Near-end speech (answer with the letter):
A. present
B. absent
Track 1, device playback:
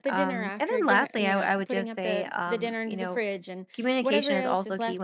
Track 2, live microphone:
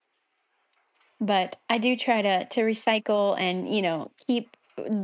A